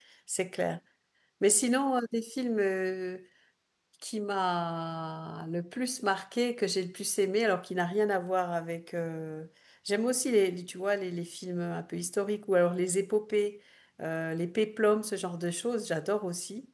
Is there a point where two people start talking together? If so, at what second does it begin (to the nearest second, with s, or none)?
none